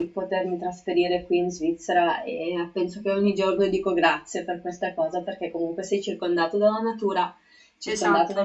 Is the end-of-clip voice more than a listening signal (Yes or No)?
No